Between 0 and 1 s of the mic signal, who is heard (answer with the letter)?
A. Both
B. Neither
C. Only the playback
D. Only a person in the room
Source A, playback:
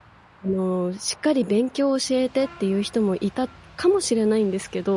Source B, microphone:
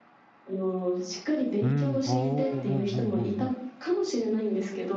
C